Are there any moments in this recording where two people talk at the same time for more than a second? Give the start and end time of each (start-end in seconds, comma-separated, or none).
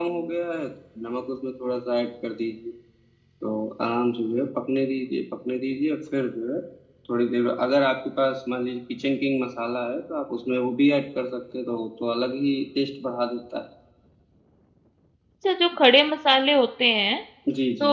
none